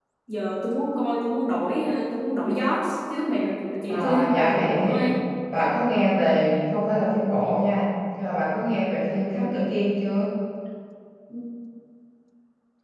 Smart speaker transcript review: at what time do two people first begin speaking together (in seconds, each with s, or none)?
3.9 s